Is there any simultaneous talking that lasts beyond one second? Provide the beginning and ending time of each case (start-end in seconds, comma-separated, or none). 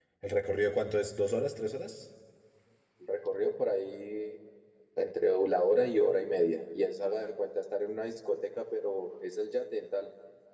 none